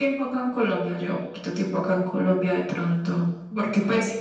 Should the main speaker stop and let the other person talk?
No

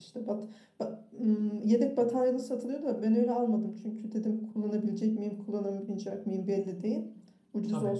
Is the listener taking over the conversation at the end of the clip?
No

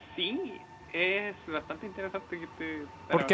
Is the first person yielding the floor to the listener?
Yes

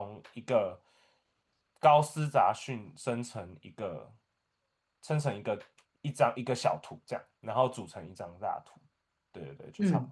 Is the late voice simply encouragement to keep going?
No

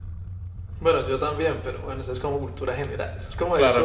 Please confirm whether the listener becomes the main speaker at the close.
No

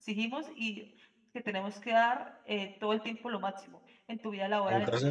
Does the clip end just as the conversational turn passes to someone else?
Yes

